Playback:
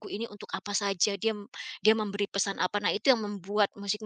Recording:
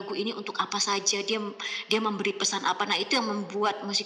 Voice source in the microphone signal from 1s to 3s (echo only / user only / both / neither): echo only